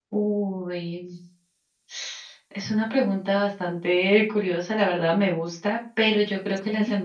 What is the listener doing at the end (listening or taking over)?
listening